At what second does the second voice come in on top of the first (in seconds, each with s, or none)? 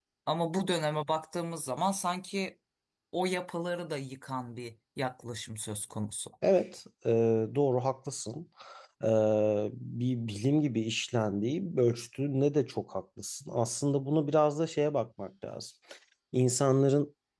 none